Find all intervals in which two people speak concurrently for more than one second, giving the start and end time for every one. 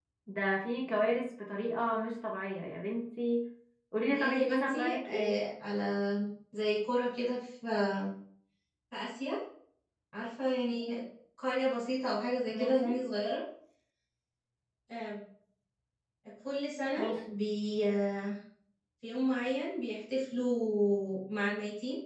4.0-5.3

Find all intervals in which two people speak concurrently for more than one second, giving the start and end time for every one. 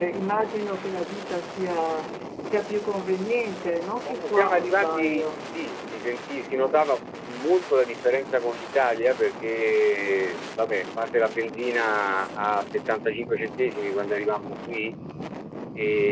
4.1-5.4

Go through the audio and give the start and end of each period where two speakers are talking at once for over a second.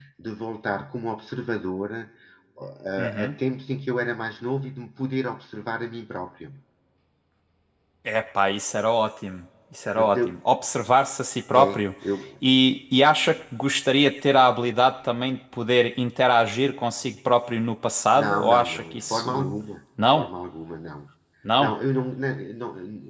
18.1-19.5

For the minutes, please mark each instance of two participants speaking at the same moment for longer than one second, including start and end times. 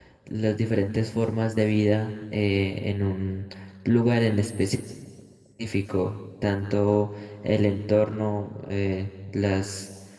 none

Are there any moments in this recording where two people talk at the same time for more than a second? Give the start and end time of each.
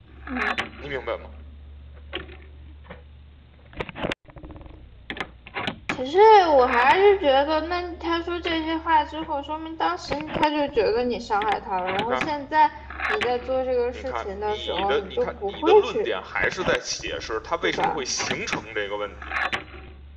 13.9-16.1

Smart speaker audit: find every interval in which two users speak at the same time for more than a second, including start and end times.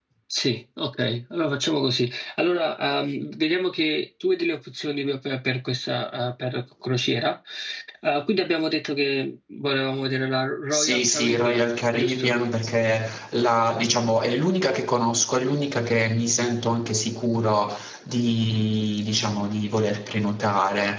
10.7-12.4

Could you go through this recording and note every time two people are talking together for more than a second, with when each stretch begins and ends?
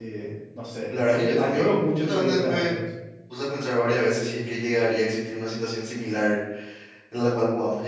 1.1-2.7

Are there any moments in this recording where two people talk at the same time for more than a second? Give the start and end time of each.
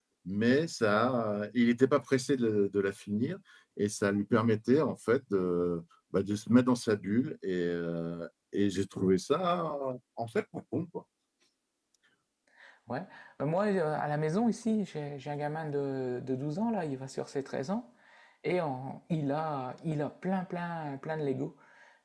none

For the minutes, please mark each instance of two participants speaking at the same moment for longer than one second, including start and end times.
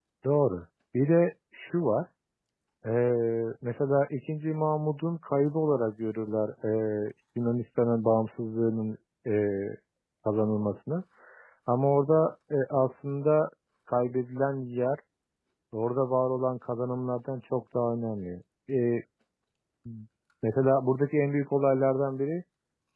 none

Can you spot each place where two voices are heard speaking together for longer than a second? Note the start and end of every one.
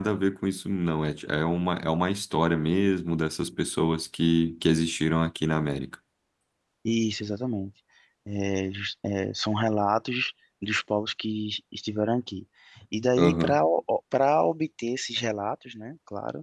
none

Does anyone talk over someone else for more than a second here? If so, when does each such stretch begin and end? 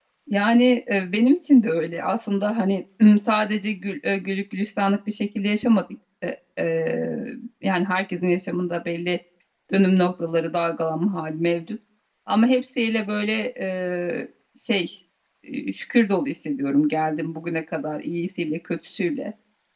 none

